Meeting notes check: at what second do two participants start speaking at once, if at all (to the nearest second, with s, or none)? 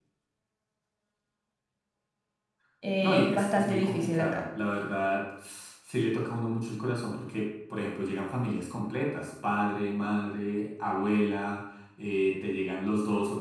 3 s